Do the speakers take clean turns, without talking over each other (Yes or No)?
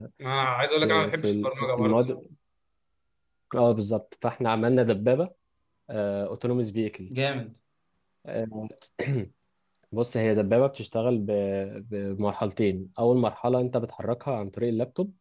No